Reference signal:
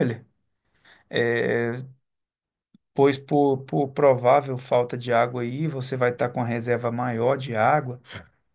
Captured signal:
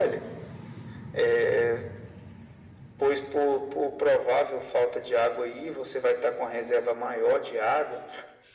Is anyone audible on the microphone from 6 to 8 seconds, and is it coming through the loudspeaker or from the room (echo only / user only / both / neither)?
echo only